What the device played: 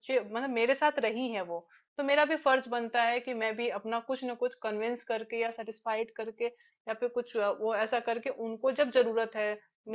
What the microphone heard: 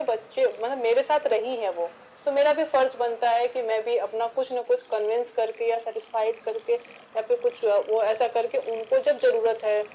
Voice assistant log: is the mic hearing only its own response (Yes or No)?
Yes